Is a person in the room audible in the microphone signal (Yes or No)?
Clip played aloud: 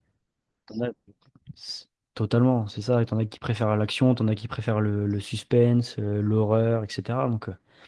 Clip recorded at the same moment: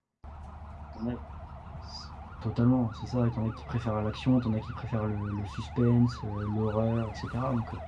No